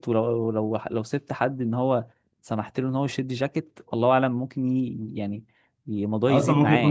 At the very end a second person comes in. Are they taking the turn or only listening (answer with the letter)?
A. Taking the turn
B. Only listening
A